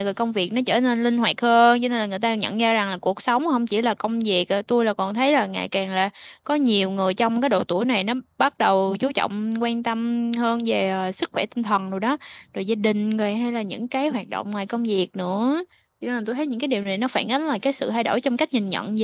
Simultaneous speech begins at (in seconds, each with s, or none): none